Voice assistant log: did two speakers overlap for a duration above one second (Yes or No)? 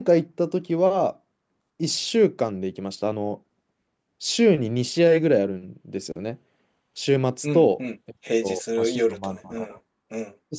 Yes